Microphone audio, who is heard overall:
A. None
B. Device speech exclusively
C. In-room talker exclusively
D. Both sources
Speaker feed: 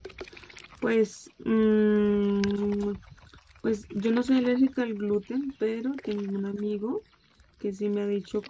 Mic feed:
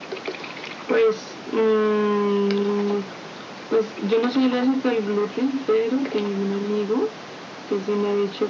B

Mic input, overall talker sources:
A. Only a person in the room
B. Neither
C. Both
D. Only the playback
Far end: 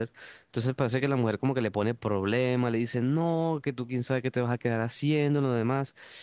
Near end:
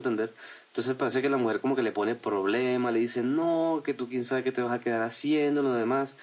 D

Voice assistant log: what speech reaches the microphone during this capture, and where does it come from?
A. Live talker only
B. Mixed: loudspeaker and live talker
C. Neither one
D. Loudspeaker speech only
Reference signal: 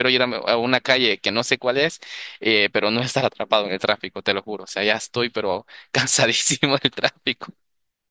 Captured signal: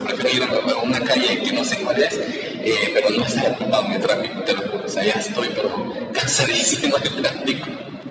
D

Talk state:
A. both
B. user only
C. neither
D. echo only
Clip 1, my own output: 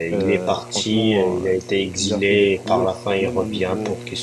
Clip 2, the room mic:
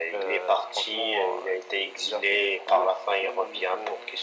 D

